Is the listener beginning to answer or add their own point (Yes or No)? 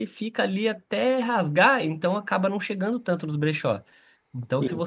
No